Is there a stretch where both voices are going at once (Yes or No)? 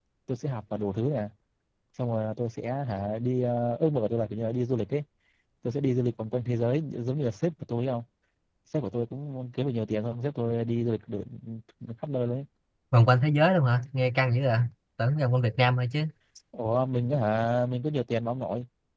No